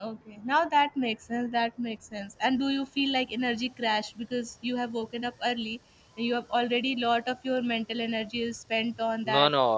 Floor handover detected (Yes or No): Yes